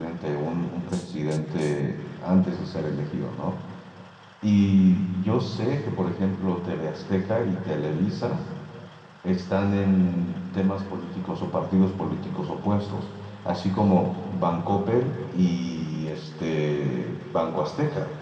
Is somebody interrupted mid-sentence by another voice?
No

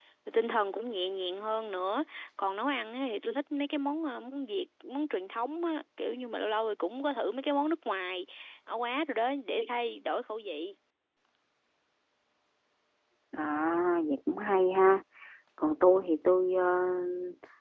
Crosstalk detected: No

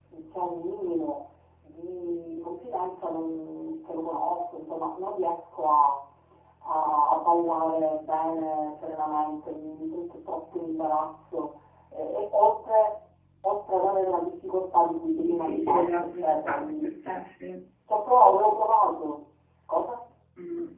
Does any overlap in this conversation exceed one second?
Yes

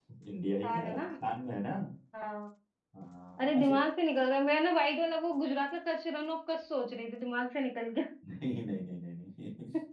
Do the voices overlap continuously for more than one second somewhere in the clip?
No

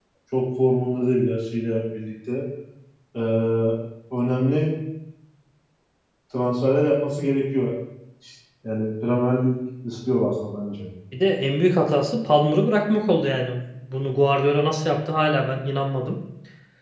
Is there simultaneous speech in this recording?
No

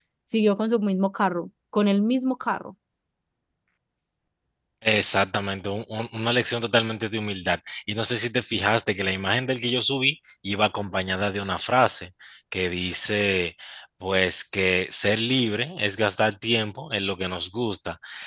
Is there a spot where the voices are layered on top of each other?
No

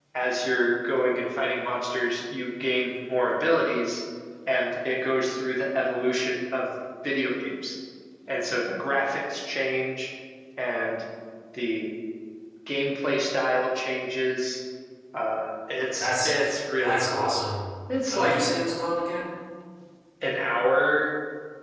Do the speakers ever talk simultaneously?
Yes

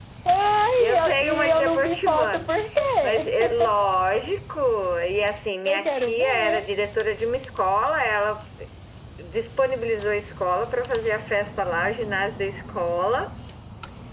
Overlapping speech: Yes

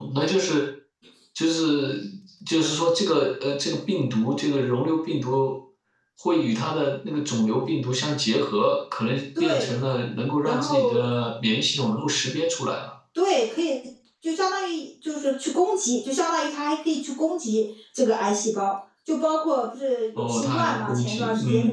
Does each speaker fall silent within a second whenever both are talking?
No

